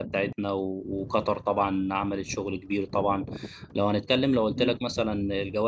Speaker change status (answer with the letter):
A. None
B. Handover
A